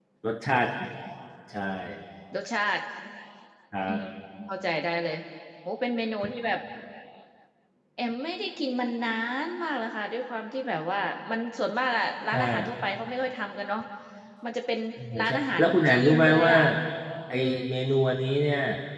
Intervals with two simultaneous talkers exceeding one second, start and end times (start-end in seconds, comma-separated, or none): 15.2-16.5